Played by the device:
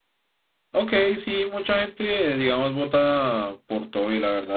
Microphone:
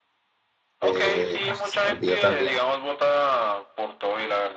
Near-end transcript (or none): Eh, ah, se me olvidó también.